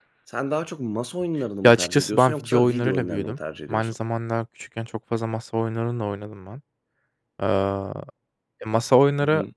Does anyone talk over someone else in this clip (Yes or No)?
Yes